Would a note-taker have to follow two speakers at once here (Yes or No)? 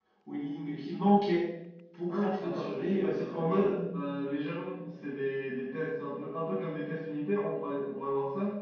Yes